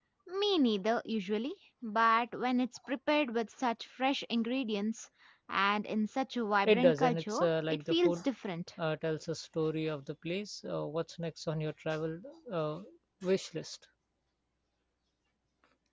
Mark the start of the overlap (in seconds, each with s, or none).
6.6 s